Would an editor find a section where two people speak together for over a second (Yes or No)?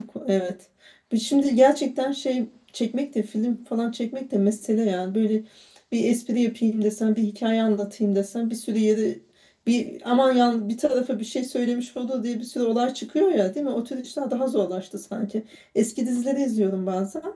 No